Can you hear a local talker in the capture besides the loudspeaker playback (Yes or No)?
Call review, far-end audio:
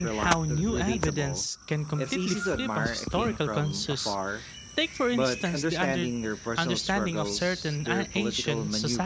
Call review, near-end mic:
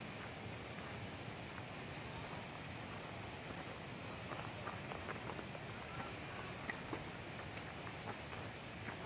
No